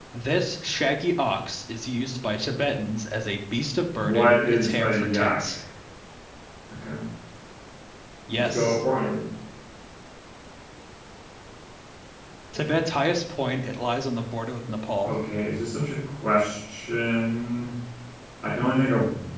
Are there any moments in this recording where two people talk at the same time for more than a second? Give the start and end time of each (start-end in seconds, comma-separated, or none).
4.0-5.5